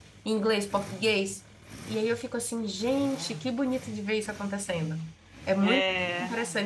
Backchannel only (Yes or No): Yes